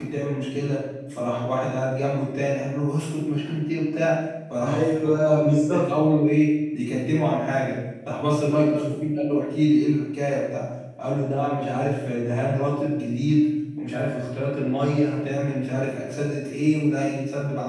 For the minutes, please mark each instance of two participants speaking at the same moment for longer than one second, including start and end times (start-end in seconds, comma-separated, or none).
4.6-5.9